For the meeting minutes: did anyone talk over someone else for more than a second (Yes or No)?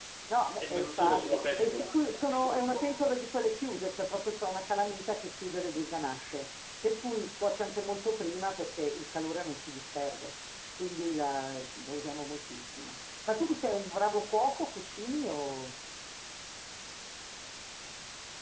Yes